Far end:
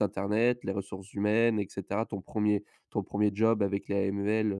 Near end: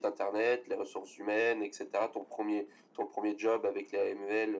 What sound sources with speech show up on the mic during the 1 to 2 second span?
echo only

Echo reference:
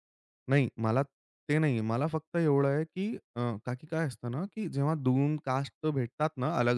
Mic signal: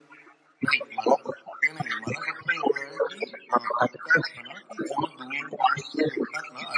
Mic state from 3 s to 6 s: echo only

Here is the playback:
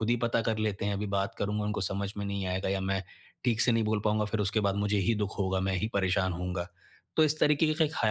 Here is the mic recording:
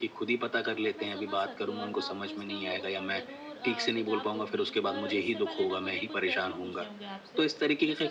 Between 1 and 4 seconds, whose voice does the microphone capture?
both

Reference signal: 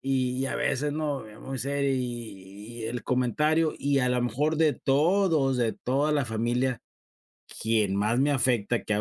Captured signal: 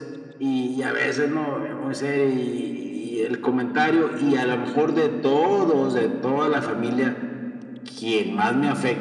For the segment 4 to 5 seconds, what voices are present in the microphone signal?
echo only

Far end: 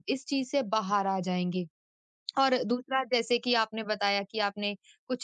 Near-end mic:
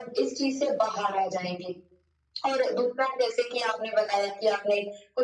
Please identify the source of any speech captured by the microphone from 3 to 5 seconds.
echo only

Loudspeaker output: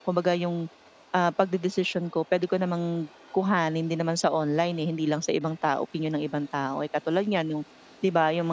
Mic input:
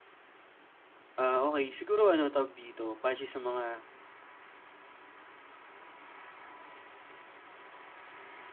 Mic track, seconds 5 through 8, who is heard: neither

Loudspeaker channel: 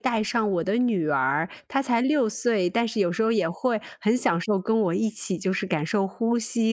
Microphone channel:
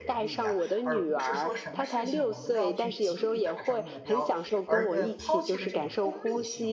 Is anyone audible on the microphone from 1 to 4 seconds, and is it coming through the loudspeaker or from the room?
both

